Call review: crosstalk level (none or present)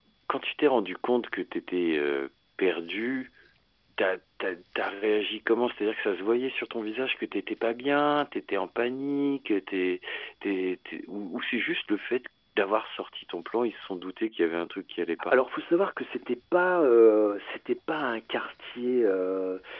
none